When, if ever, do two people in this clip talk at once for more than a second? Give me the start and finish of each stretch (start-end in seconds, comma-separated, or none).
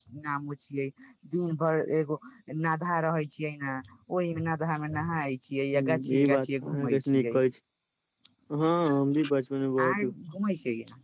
5.8-7.3